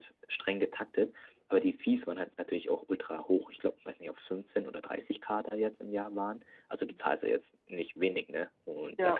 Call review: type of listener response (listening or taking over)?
listening